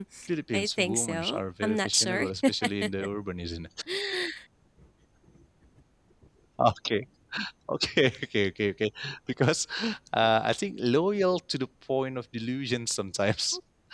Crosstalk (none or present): present